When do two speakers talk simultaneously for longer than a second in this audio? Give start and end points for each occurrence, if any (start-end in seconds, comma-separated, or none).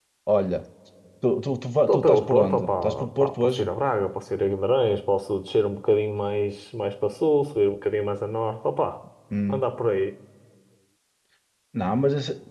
1.9-3.7